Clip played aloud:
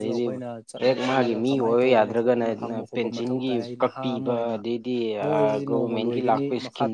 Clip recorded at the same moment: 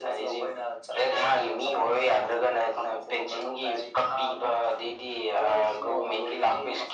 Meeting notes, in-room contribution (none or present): none